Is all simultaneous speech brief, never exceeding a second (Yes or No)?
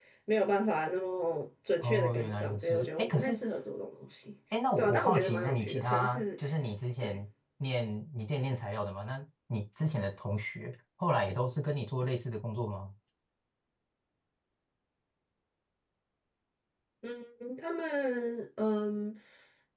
No